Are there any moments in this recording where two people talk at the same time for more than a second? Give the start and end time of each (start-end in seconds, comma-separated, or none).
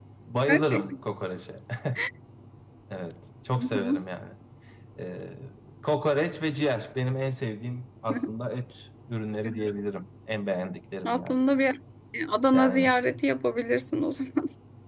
none